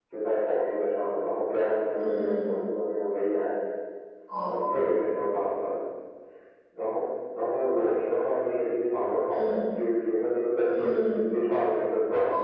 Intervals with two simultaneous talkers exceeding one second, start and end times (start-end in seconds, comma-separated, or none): none